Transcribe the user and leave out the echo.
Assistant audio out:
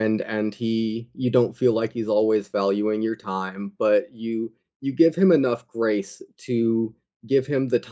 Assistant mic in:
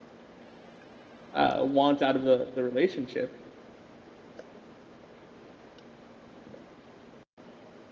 uh, want out of the the relationship.

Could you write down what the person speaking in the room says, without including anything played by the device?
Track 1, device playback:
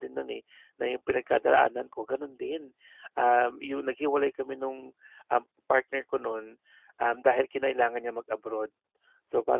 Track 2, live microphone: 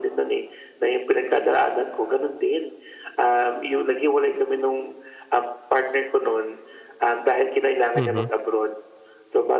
mhm,

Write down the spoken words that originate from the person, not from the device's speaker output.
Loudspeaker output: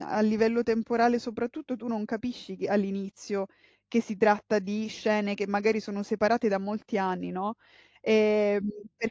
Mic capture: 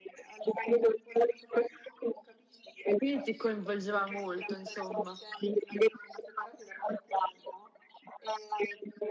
Quindi ti coinvolgeva molto insomma.

